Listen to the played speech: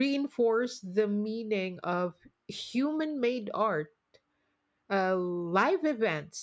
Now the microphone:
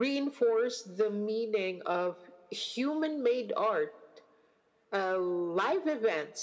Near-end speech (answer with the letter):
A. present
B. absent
B